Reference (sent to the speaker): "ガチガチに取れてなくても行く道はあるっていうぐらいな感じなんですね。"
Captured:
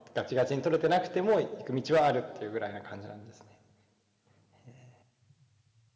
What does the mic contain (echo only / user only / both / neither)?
echo only